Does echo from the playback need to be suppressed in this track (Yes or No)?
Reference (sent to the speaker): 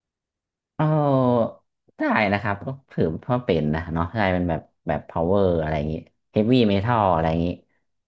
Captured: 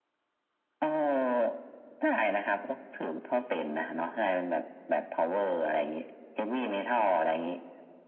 Yes